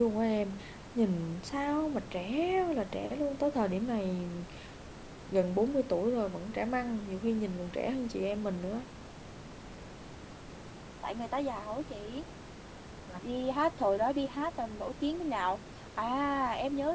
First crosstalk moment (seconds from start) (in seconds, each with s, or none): none